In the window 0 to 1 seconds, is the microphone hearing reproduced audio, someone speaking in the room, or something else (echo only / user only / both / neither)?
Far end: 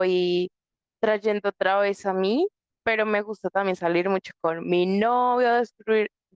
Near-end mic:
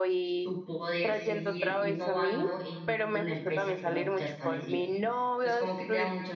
both